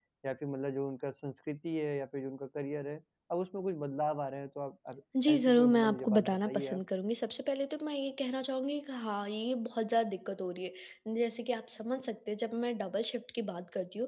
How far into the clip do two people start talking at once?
5.1 s

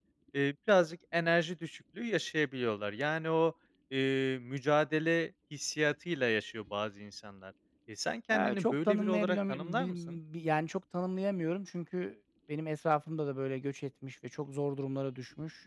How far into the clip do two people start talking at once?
8.3 s

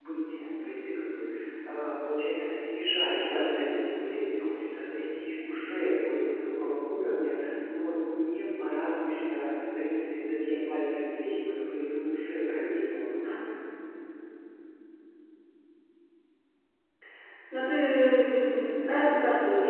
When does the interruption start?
none

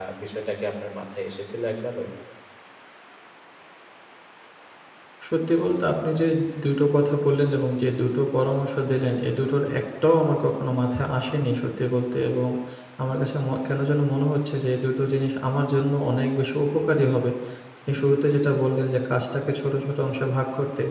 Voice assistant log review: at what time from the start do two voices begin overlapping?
none

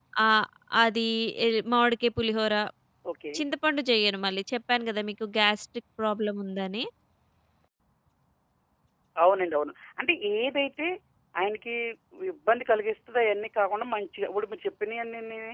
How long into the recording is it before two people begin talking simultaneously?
none

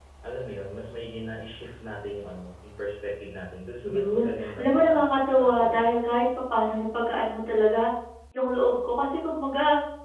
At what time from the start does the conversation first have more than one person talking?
3.8 s

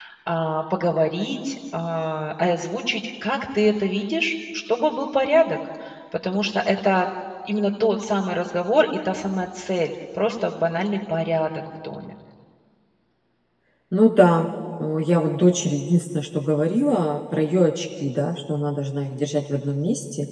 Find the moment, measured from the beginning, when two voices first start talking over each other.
none

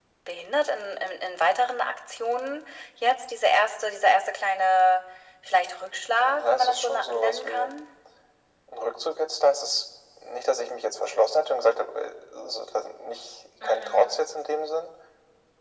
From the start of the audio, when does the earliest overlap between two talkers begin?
6.2 s

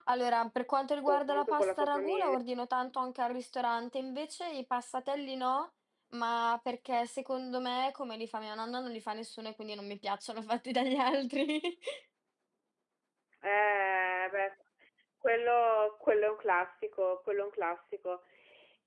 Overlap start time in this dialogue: 1.1 s

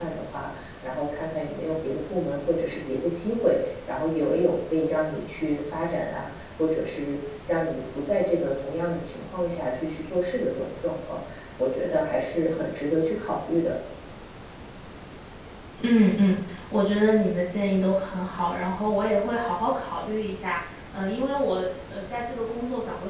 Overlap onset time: none

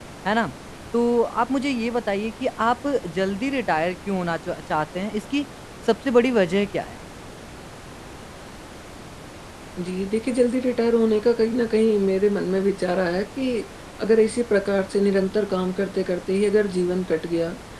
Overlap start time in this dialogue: none

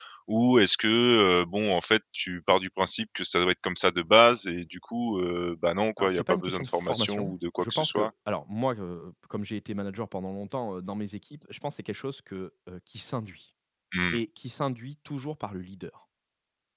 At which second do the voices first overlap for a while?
6.0 s

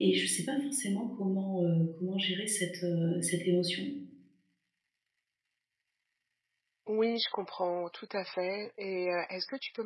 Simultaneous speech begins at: none

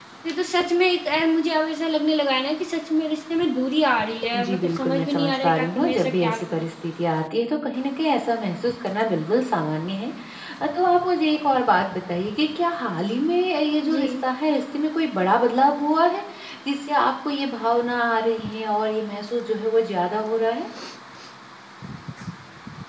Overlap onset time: 4.3 s

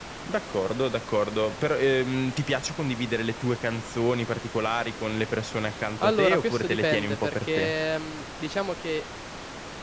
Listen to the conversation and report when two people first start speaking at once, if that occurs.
6.0 s

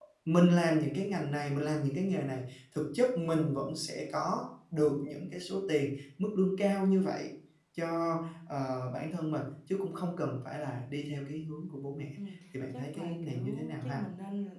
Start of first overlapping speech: 12.7 s

